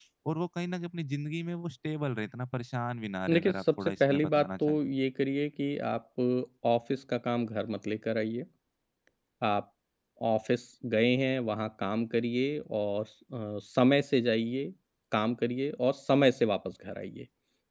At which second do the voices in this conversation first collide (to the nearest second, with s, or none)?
3 s